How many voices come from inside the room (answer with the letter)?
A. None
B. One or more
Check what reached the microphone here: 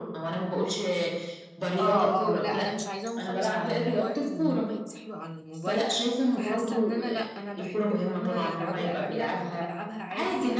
B